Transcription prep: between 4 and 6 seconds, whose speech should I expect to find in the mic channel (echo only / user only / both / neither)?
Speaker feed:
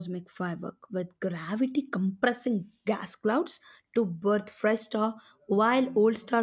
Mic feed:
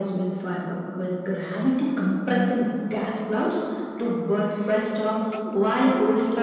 both